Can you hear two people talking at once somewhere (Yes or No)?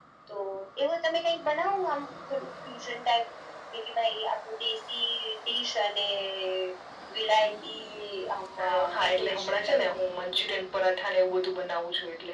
Yes